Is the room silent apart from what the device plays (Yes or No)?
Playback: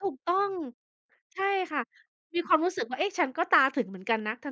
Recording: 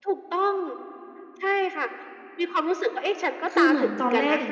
No